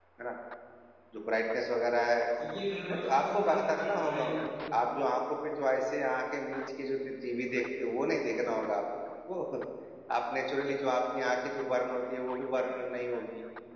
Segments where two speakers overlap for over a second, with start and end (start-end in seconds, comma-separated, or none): 2.9-4.5